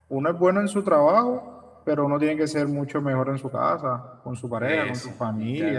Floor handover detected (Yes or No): Yes